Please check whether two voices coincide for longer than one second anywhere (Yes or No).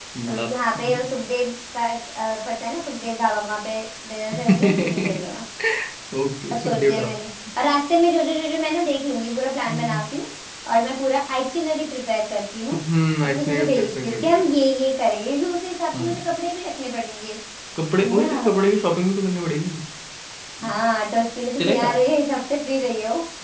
Yes